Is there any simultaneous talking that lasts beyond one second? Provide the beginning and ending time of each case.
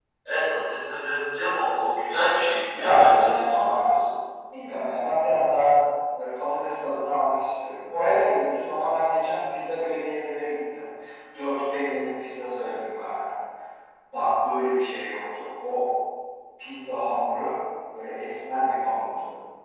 2.8-4.0

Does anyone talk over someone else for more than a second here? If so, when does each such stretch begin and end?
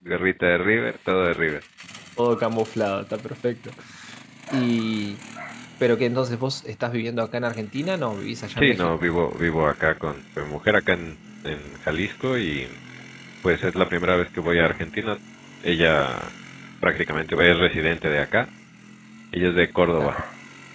none

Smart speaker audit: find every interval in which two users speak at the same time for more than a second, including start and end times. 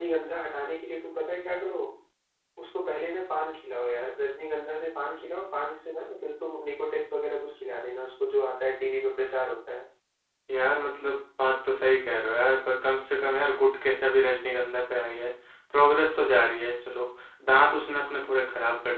none

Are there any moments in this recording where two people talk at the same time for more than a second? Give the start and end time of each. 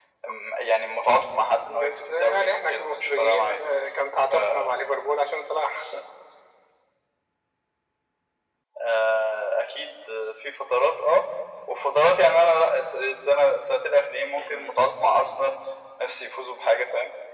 1.6-3.6

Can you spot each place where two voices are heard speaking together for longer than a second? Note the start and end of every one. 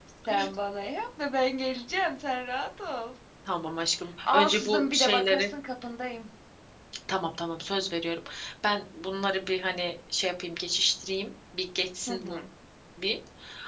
4.2-5.5

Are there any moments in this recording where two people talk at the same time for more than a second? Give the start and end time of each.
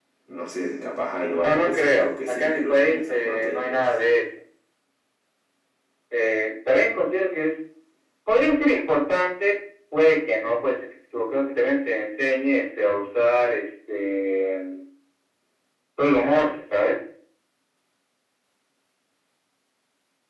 1.4-3.9

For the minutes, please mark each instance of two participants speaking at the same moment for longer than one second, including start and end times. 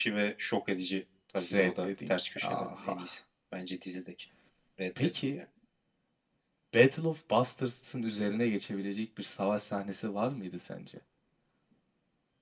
1.5-2.9

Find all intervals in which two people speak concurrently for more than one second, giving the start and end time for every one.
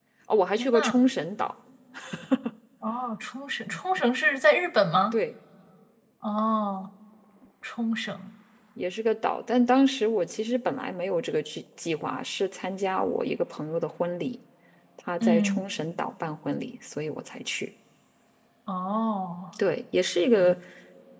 none

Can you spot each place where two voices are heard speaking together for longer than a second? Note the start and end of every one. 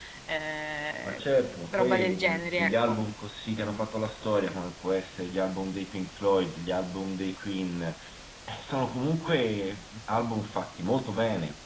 1.7-3.0

